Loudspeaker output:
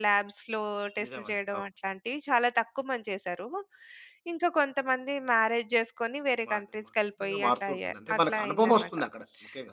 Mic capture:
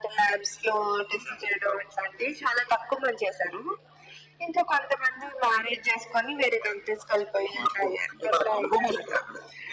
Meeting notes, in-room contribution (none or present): none